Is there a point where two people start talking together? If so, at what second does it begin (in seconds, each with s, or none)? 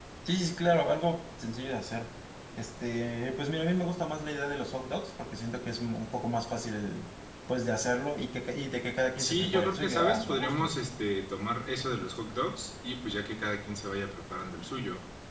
9.2 s